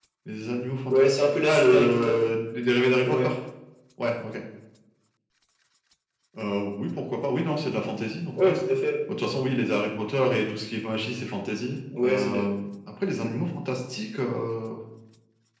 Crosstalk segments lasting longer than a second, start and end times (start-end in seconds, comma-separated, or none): 0.9-2.1